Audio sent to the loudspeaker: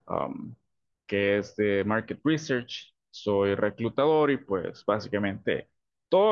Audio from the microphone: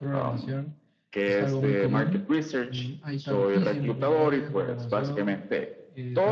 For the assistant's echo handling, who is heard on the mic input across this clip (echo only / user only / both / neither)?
both